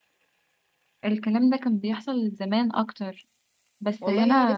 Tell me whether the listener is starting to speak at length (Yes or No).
Yes